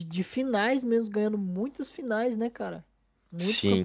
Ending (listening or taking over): taking over